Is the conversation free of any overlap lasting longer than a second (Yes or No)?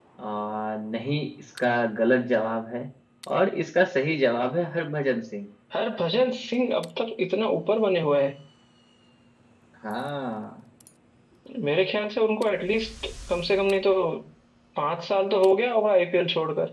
Yes